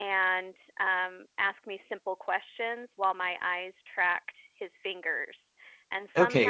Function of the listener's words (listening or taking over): taking over